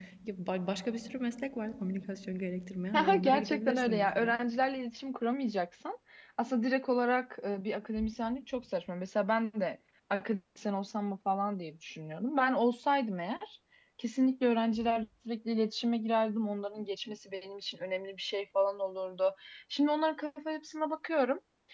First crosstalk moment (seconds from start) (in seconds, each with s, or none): 2.9 s